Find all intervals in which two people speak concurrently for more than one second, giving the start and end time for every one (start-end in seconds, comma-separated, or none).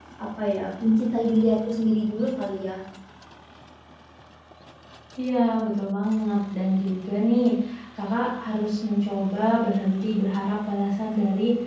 none